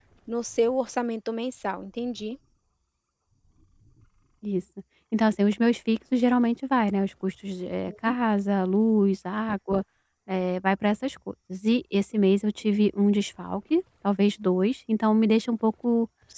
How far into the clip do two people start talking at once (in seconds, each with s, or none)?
none